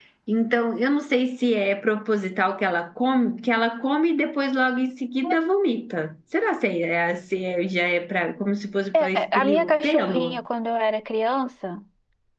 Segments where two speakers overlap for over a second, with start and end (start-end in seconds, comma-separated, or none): 9.0-10.4